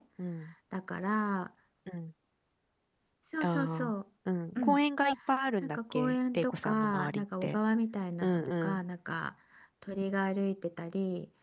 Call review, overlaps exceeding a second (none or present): present